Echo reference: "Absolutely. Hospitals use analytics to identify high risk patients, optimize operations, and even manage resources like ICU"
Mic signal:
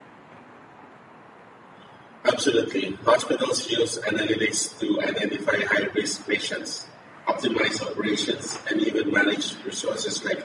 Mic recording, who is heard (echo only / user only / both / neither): echo only